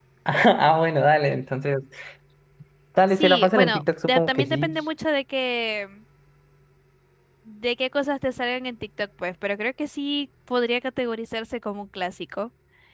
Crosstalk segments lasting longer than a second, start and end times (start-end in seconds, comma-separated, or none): 3.2-4.8